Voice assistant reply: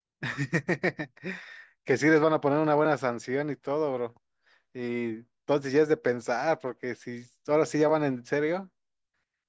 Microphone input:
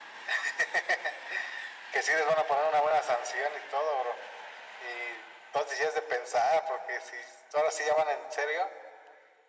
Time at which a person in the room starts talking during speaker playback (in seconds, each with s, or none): none